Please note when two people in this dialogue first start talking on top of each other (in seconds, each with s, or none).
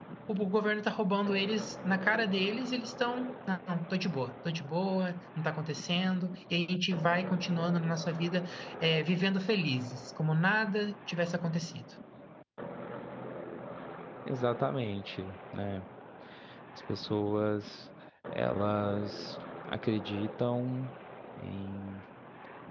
none